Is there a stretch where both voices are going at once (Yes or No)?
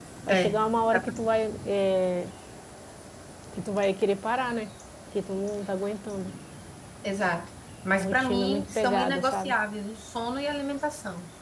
Yes